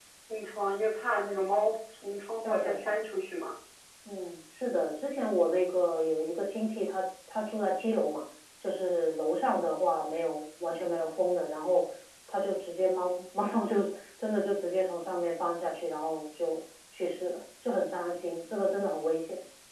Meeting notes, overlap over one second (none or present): none